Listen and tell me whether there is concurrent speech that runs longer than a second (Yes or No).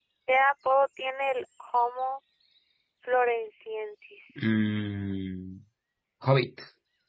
No